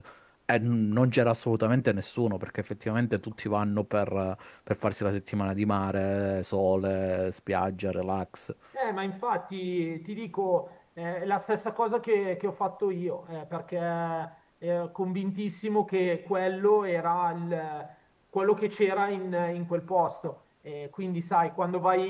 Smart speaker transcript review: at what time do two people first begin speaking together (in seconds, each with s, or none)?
none